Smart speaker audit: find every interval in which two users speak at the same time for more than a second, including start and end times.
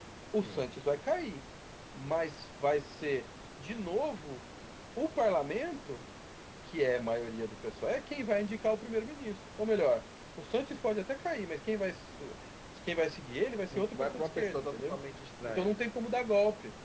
13.7-15.0

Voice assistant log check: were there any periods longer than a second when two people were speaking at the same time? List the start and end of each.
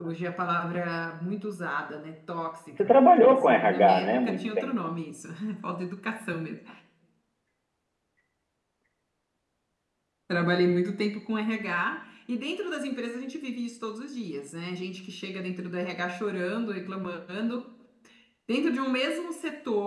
2.8-4.7

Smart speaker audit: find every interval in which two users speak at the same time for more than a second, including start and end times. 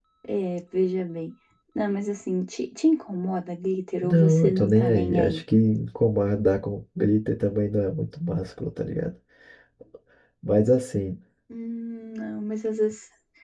4.0-5.4

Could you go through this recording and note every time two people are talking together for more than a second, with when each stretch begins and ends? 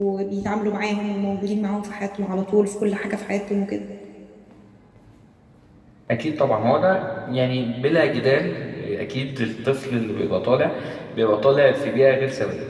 none

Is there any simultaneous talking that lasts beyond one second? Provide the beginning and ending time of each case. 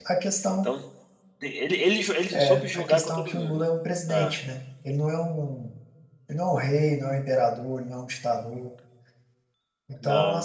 2.3-3.6

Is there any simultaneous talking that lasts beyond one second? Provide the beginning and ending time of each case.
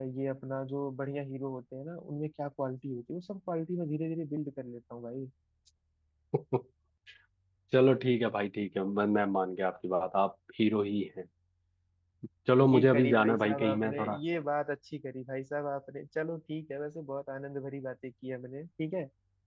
12.7-14.2

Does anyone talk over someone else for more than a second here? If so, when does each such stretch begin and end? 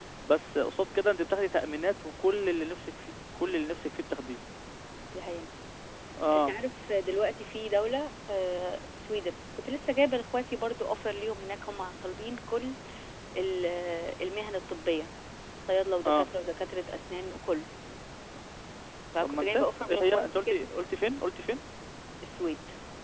19.2-20.7

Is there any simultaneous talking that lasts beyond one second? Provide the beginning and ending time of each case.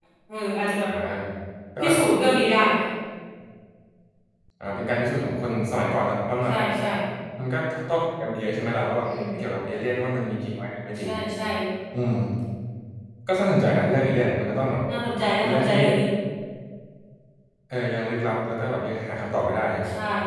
none

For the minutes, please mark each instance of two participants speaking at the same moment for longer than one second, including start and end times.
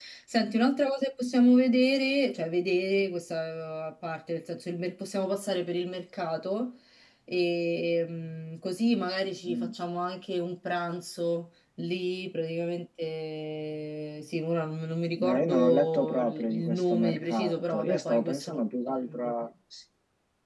15.2-18.6

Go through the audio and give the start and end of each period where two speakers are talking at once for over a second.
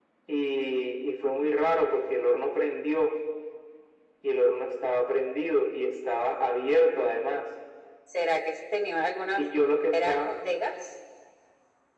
none

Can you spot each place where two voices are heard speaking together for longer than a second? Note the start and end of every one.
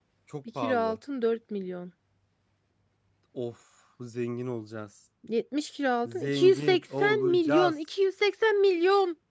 6.0-7.8

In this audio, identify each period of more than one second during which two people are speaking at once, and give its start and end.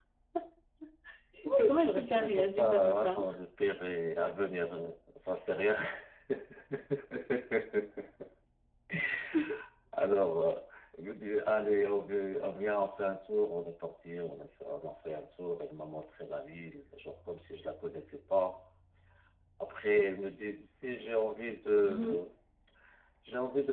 1.6-3.2

